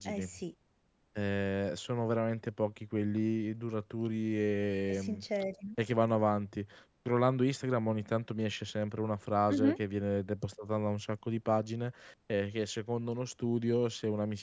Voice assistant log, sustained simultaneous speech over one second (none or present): none